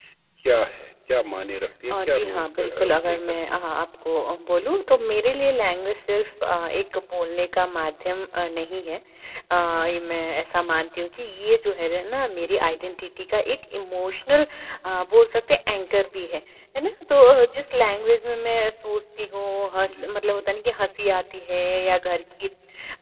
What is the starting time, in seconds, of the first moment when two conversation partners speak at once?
2 s

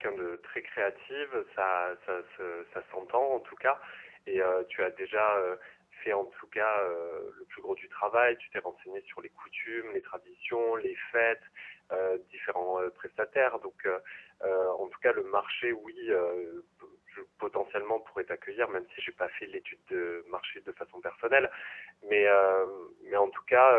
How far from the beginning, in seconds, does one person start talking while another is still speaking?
none

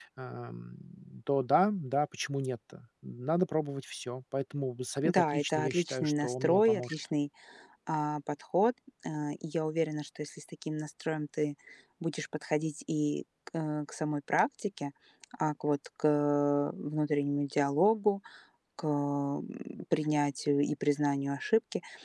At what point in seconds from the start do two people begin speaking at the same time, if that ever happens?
5 s

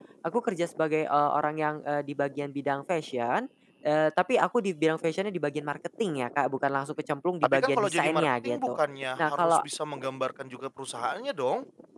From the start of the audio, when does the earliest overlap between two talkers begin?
7 s

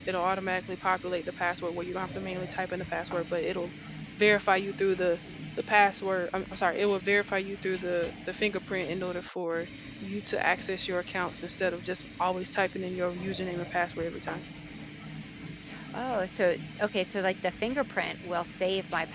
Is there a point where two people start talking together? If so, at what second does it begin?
none

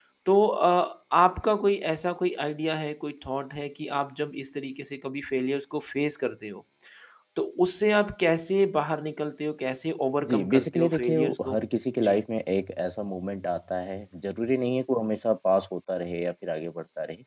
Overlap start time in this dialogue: 10 s

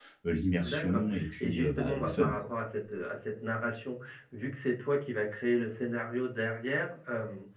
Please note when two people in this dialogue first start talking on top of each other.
1 s

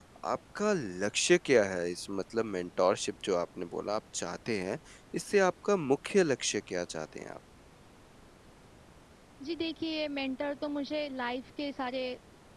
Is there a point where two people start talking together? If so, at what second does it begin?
none

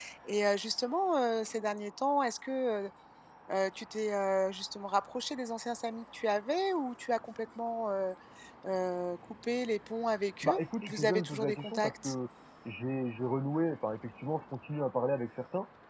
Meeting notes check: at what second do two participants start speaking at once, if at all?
10 s

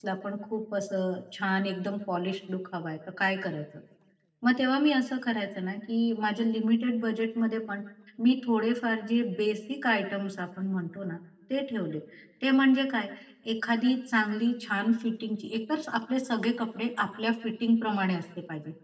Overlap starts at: none

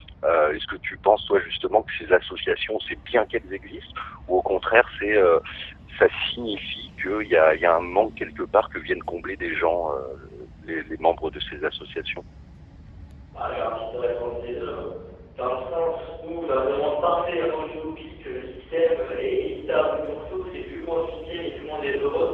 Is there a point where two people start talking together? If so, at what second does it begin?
none

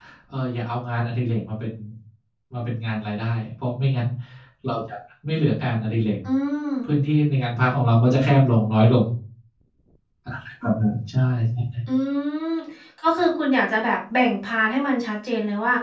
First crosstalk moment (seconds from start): none

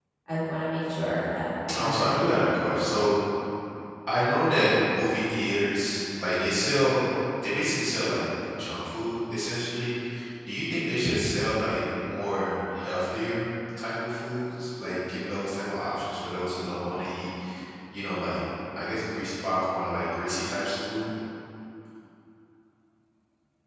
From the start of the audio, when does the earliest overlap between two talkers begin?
2 s

